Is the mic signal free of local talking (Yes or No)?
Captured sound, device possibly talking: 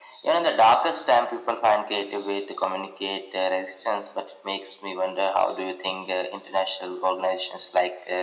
Yes